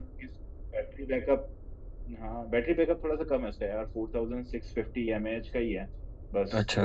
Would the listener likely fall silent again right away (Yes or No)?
Yes